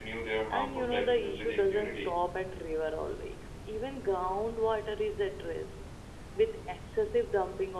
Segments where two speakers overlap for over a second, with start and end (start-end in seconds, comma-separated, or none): 0.5-2.1